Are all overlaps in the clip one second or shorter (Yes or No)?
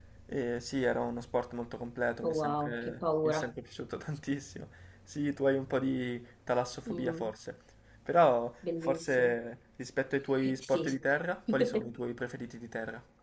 No